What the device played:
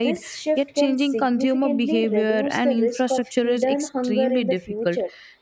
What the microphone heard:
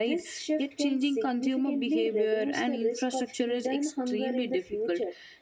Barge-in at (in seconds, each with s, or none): none